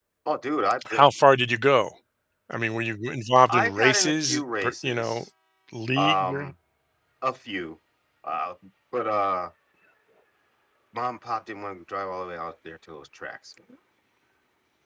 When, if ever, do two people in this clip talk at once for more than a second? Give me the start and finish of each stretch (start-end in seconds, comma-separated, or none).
3.5-5.2